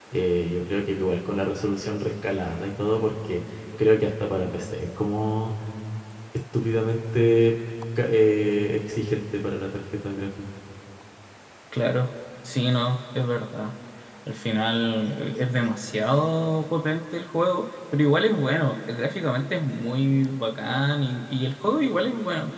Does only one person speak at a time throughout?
Yes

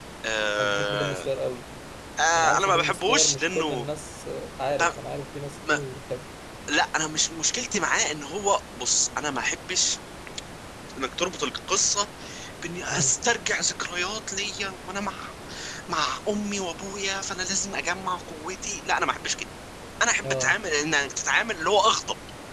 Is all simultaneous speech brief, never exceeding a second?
No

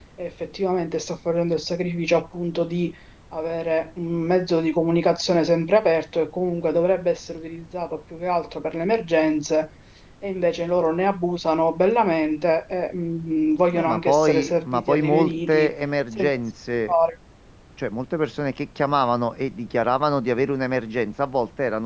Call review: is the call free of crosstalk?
No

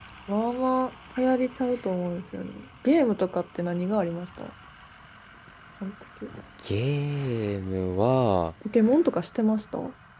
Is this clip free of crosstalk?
Yes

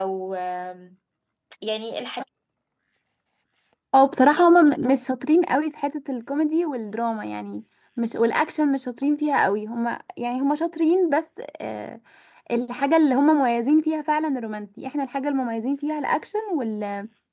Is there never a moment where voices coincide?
Yes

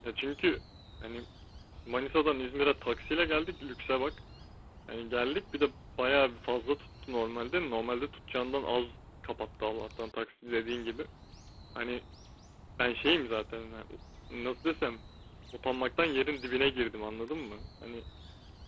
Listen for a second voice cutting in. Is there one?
No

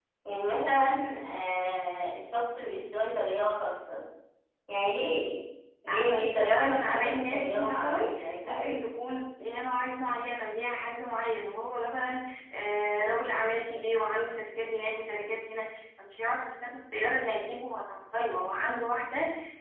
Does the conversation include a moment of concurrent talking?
Yes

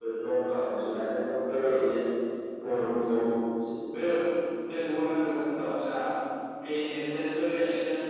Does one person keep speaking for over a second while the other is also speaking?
No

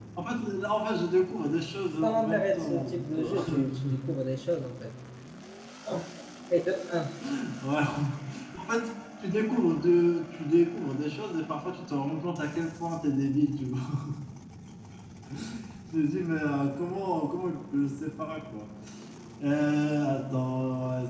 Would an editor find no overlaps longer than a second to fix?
No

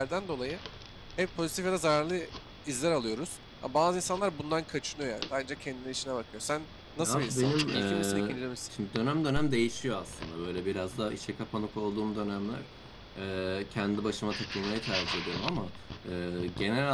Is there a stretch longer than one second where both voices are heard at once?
Yes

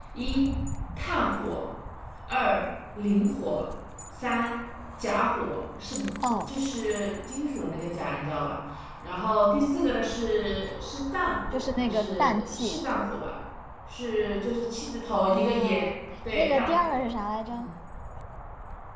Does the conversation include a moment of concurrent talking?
Yes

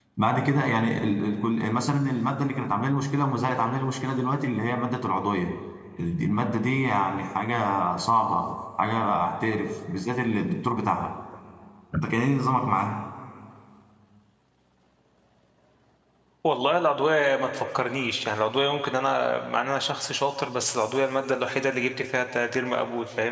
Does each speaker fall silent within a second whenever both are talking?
Yes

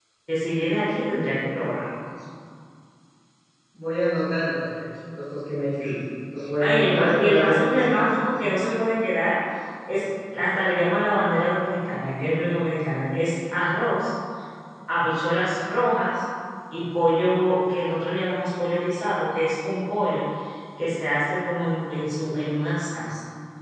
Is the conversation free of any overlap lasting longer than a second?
No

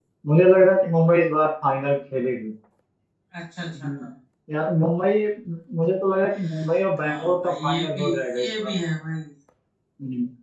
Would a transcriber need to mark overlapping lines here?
Yes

